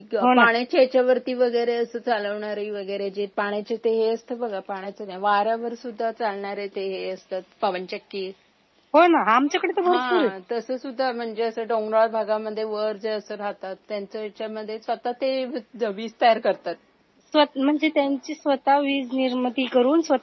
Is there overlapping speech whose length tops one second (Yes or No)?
No